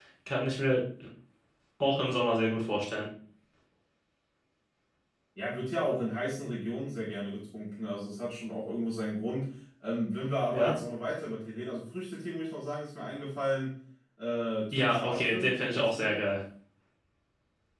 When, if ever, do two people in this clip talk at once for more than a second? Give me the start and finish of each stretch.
14.7-16.1

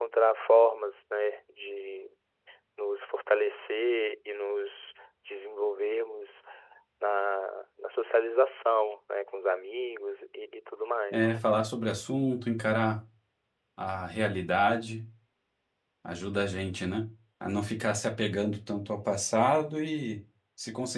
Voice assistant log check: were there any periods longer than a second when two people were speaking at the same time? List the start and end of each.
none

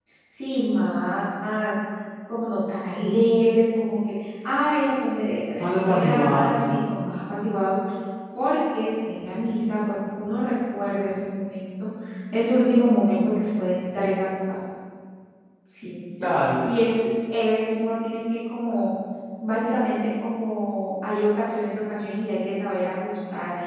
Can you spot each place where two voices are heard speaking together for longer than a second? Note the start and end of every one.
5.6-6.8

